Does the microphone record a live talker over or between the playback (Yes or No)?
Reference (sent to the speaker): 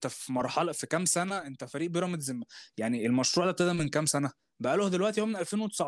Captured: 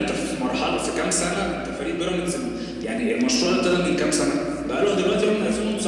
No